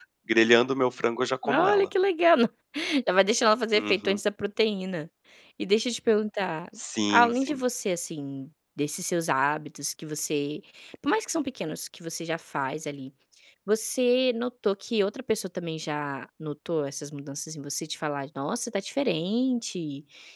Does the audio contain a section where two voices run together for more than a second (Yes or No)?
No